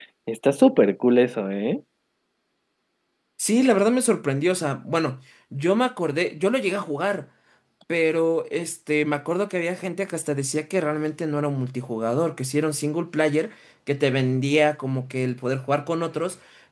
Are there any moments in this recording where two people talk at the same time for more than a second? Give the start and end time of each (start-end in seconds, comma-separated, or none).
none